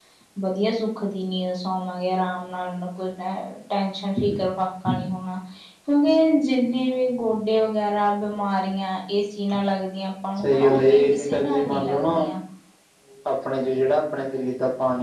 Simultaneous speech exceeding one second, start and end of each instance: 10.4-12.1

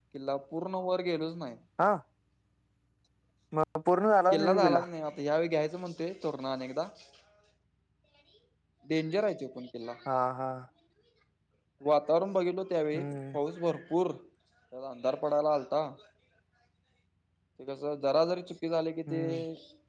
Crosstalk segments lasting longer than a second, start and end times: none

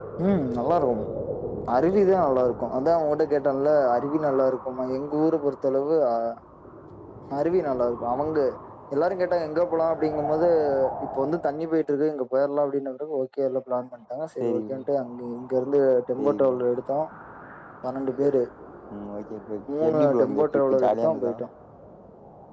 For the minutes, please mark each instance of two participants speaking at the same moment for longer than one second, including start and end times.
19.8-21.3

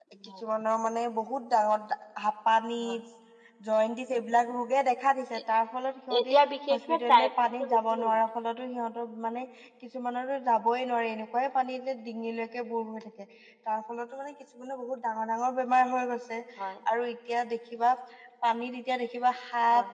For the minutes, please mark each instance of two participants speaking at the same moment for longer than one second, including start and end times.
6.7-8.2

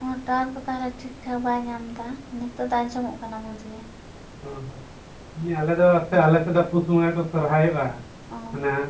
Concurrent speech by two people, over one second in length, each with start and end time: none

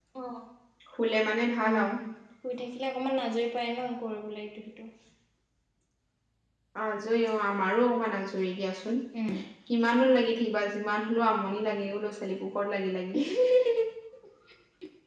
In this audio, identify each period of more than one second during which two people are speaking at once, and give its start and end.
none

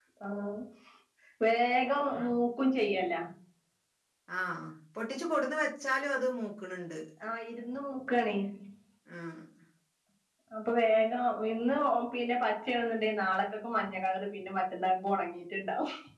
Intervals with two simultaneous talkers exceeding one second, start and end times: none

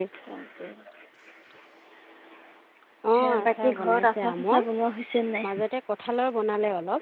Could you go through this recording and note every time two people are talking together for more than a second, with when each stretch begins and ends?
3.2-4.6

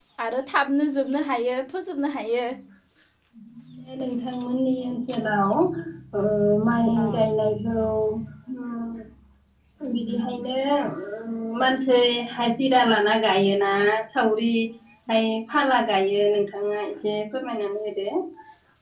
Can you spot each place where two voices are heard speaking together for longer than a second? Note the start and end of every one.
none

